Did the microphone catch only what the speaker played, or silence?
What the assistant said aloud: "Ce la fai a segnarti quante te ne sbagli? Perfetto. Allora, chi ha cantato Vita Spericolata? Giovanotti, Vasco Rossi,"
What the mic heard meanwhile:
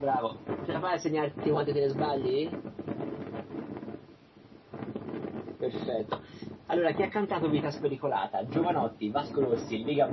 Yes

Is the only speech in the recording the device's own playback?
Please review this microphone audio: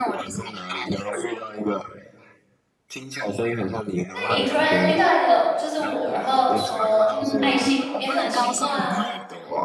No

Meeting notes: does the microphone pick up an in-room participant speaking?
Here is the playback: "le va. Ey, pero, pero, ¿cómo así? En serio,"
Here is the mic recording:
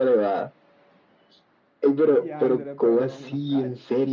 Yes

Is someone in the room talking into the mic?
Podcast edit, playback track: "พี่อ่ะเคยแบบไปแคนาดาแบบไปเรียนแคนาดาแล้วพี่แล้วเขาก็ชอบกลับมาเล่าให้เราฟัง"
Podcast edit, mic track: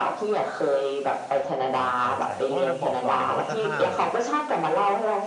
Yes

